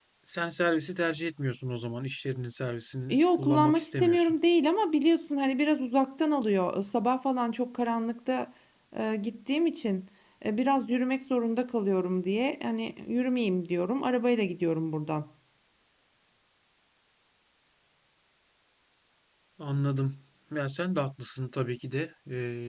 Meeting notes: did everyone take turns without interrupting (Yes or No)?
No